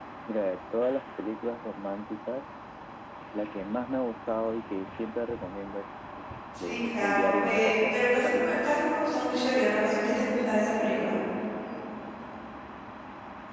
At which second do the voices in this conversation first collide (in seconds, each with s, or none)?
6.5 s